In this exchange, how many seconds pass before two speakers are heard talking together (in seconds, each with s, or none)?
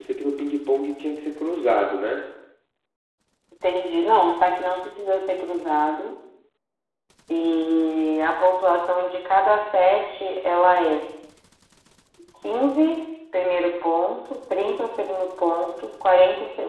none